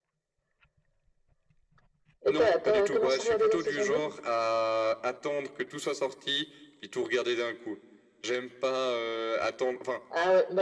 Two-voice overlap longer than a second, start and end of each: 2.3-4.0

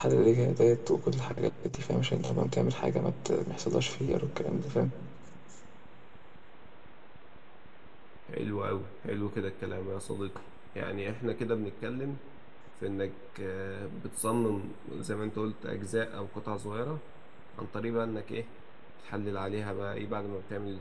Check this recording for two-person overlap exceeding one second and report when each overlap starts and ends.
none

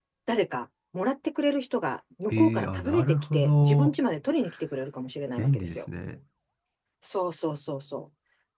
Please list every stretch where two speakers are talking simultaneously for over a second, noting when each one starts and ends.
2.3-4.0

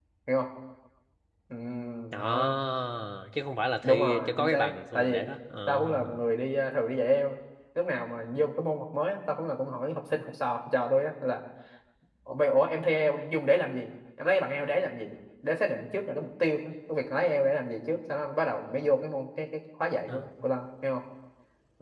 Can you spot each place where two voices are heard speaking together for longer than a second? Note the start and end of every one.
3.8-5.2

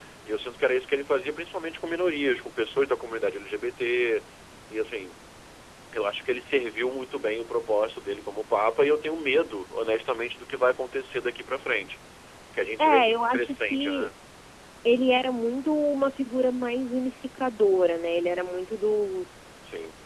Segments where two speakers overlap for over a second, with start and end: 12.8-14.1

